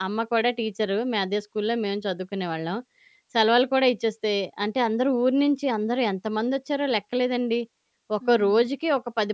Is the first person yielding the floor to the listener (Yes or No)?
No